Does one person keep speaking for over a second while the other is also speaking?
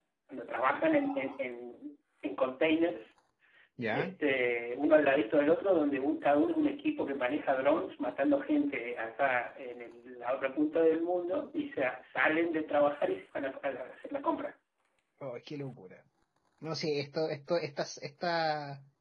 No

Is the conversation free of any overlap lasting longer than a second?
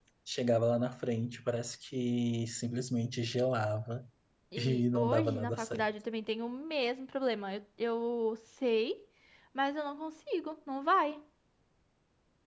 No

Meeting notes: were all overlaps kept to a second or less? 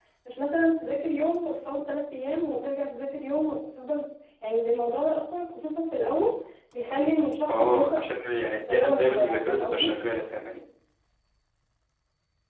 No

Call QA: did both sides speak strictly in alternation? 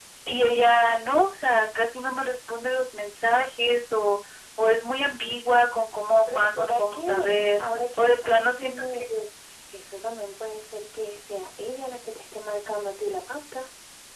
No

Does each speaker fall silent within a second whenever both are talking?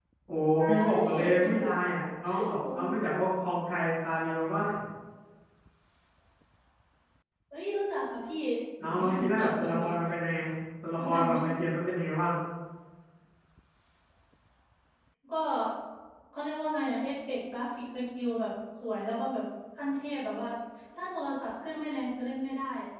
No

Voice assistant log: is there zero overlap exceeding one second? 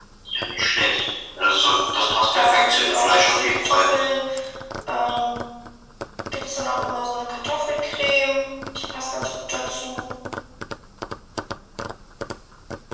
No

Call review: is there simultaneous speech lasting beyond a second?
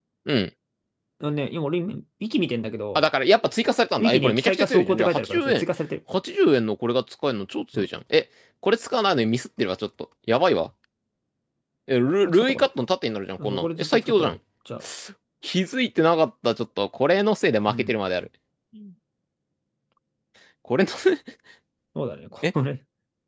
Yes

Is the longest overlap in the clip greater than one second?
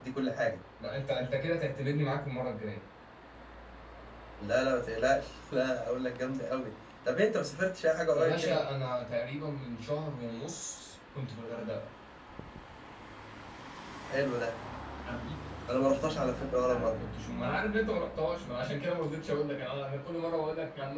No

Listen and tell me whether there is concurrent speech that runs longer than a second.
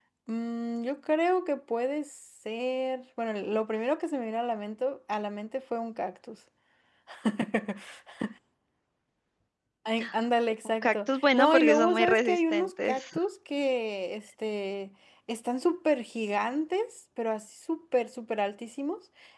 Yes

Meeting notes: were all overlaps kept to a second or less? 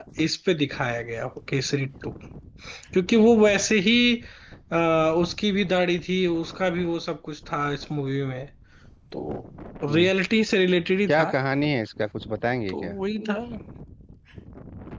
Yes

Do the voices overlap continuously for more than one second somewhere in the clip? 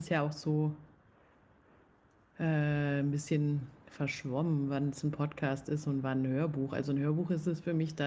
No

